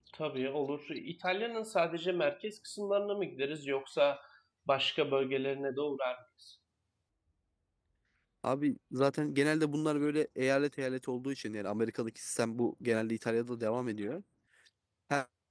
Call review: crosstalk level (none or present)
none